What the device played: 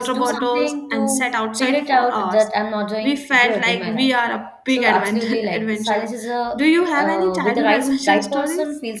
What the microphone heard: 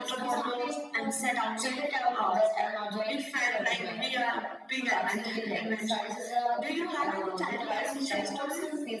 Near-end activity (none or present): none